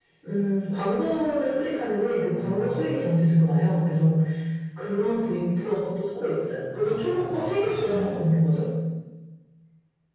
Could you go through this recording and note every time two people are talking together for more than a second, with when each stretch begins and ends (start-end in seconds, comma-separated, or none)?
6.7-8.1